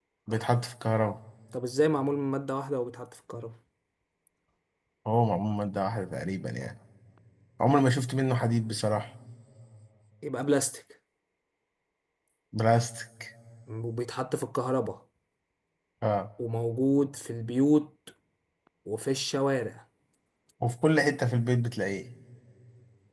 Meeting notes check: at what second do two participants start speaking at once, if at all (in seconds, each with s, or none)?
none